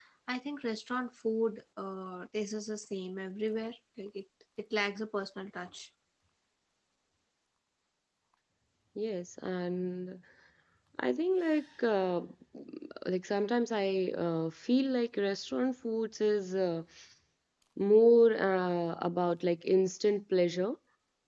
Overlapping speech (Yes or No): No